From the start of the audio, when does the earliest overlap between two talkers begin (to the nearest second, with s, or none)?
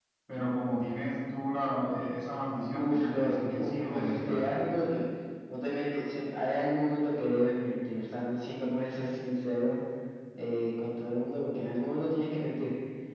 3 s